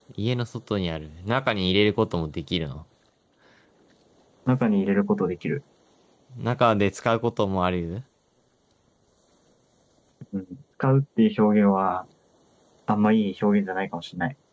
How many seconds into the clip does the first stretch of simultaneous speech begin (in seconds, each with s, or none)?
none